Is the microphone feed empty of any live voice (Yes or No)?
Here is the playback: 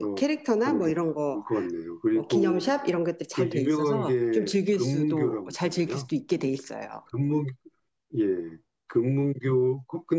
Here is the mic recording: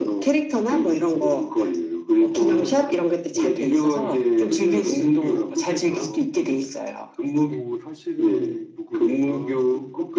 No